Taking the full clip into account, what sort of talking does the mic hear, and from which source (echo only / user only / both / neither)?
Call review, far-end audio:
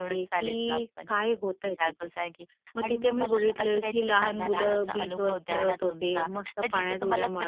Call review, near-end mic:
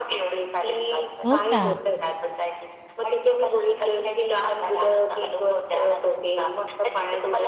both